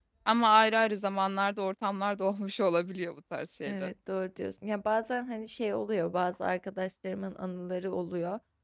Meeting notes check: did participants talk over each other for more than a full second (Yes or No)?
No